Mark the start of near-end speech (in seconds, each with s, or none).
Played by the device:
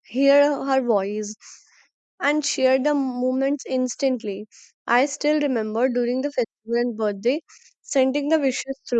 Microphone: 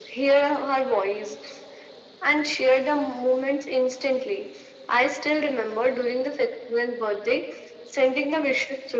none